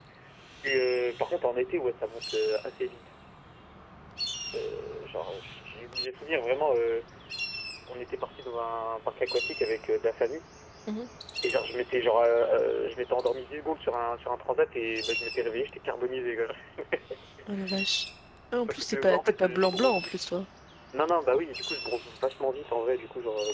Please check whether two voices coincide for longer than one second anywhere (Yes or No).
Yes